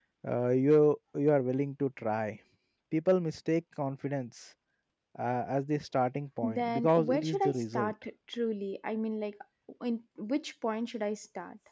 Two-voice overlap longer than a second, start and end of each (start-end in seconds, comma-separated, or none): 6.5-7.9